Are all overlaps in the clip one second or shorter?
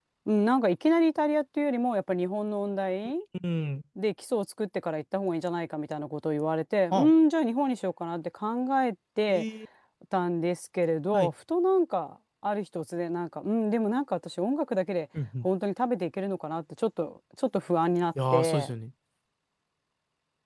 Yes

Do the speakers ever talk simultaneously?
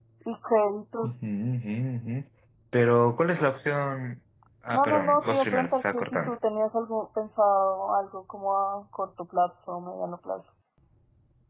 Yes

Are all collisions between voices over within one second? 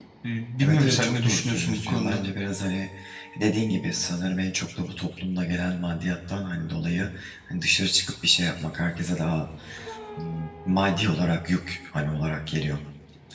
No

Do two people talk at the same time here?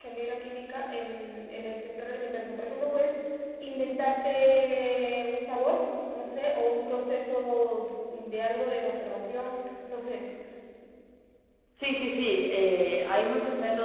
No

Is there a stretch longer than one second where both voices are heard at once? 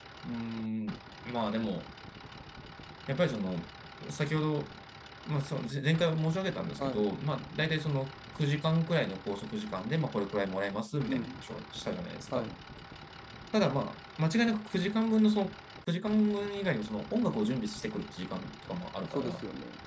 No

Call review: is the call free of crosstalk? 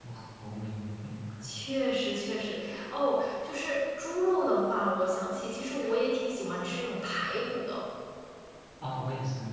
Yes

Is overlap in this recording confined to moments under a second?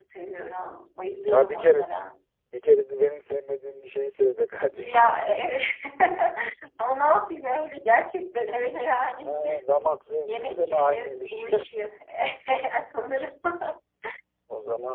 No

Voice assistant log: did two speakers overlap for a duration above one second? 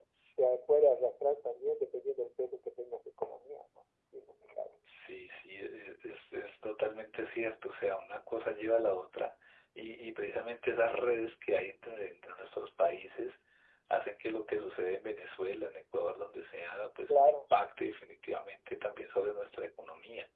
No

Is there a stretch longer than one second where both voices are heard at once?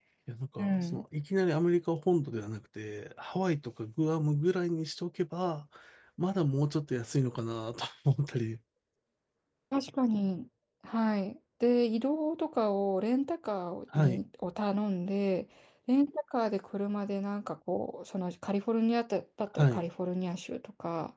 No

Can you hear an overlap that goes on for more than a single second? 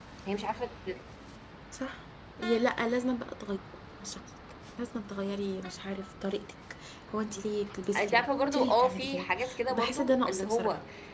Yes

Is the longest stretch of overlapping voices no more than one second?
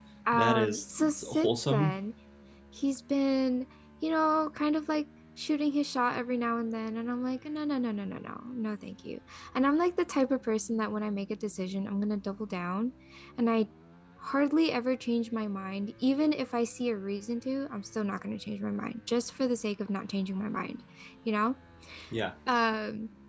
No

